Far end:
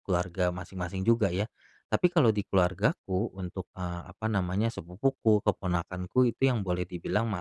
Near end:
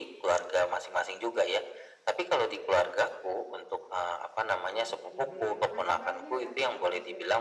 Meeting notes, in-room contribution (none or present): present